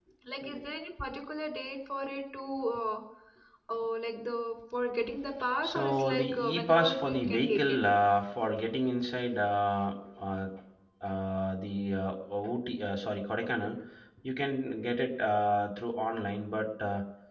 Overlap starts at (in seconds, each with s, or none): 5.6 s